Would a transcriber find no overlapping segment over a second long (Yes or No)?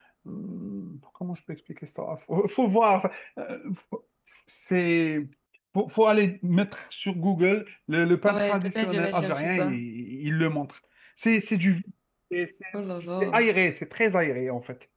No